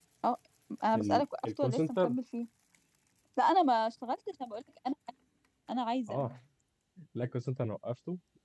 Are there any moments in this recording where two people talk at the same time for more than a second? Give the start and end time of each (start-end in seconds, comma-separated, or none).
0.9-2.1